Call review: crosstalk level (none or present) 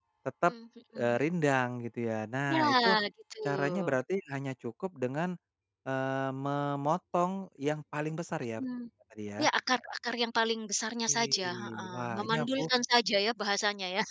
present